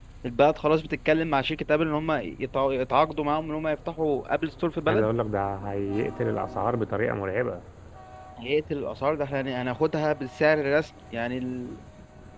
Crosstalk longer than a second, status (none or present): none